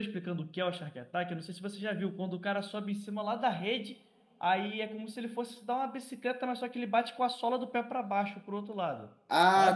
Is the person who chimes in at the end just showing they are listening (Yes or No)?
No